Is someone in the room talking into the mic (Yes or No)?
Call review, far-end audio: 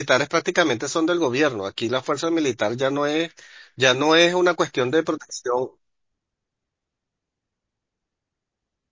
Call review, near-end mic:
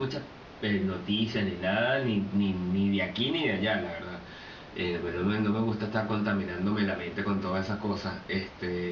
Yes